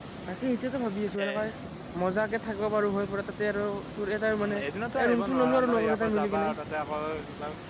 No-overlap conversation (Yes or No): No